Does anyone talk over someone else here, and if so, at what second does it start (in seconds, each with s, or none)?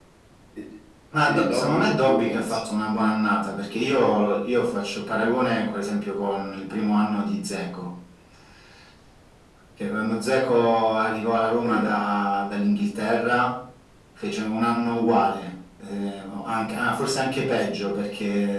1.3 s